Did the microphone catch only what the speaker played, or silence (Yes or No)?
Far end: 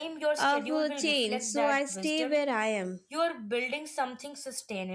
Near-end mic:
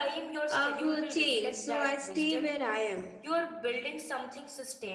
Yes